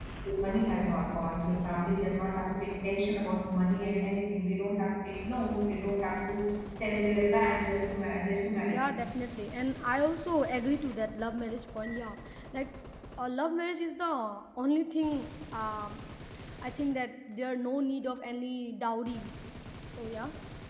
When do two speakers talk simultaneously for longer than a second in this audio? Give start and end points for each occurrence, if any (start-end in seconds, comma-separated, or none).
none